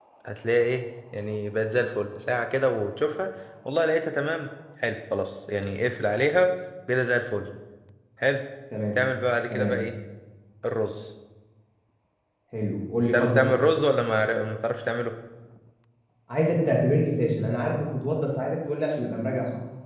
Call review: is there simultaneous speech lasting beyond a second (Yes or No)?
No